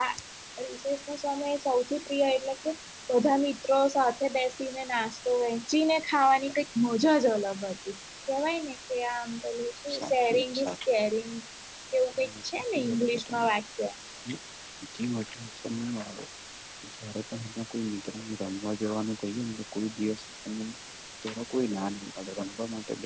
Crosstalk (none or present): present